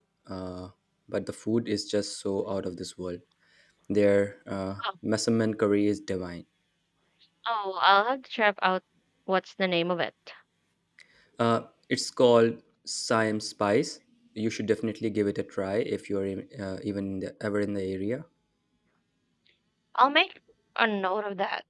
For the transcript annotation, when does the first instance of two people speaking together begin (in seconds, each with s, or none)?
none